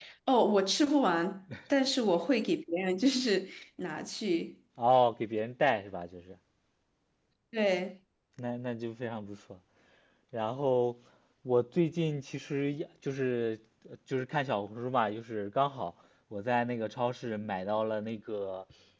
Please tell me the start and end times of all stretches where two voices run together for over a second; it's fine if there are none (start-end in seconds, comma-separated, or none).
none